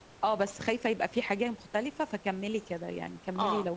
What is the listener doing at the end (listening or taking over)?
taking over